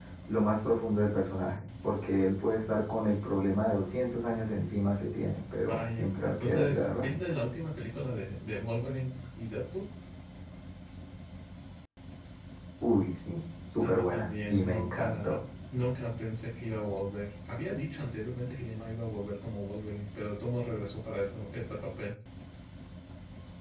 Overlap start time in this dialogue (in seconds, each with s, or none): 5.7 s